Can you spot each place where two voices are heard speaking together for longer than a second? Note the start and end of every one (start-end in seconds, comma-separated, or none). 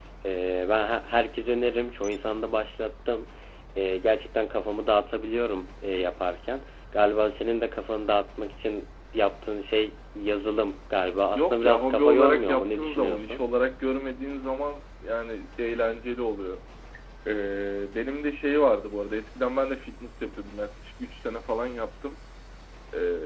11.4-13.4